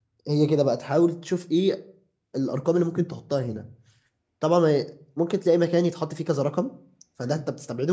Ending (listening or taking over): listening